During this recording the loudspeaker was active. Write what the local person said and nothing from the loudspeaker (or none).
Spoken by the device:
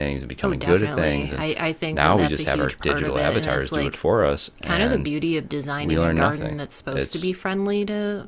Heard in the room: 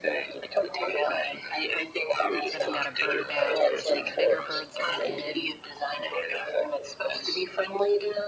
then I've got a bird bath where some of the bigger birds come in